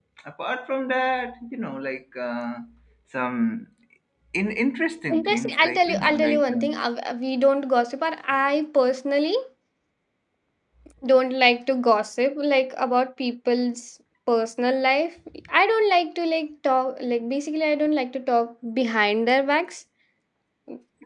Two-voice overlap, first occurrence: 5.2 s

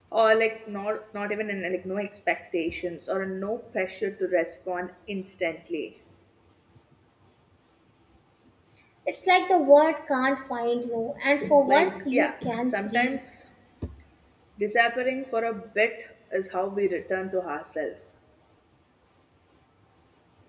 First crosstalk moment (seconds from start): 11.4 s

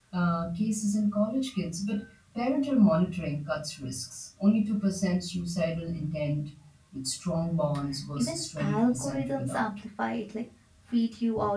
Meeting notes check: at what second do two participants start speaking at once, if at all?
8.2 s

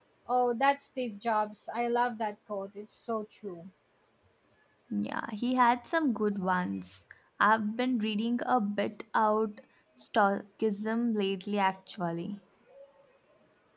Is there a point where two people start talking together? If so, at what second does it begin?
none

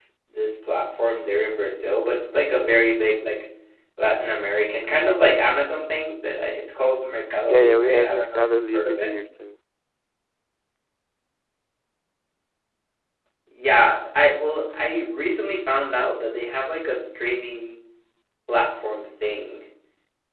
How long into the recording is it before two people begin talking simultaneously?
7.5 s

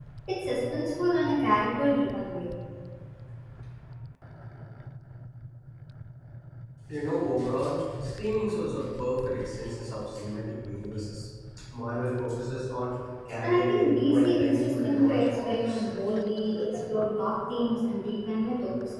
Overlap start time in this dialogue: 13.4 s

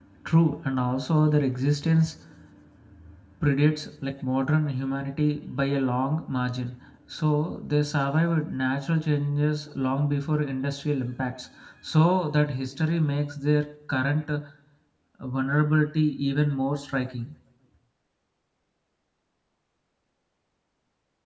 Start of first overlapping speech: none

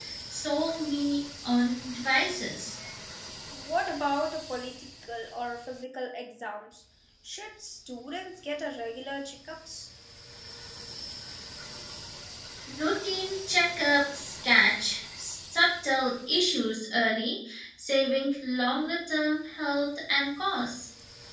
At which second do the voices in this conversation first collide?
none

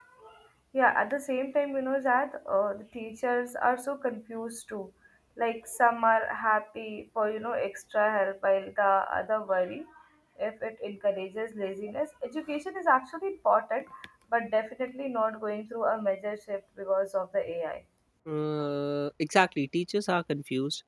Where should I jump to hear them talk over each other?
none

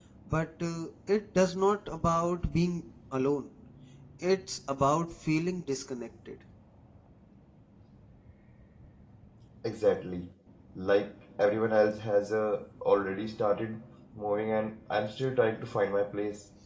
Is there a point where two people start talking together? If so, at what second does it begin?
none

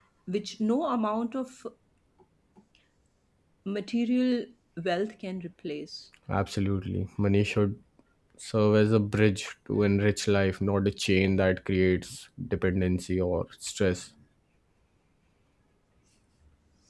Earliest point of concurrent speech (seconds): none

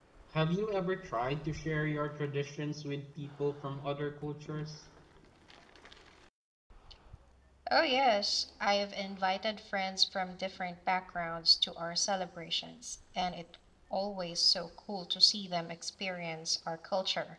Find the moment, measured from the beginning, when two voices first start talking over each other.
none

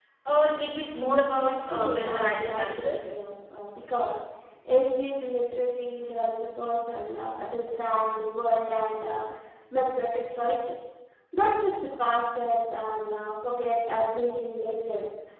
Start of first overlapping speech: 1.5 s

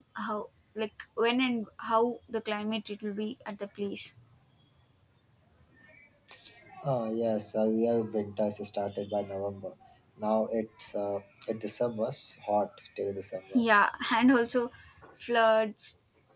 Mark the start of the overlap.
none

